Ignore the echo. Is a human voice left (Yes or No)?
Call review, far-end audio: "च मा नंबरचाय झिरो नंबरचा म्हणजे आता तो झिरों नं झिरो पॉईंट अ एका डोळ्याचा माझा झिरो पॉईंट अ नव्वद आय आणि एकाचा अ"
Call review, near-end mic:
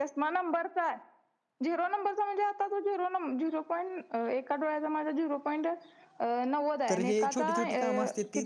Yes